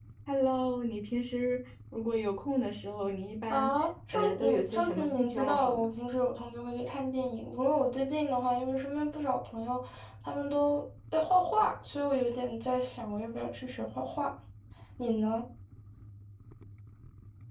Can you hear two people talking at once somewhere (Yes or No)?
Yes